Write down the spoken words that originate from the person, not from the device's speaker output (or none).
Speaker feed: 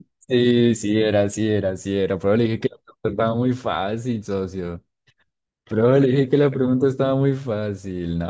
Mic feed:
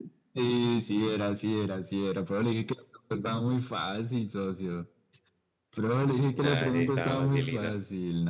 Nada, sí, estaba facilito.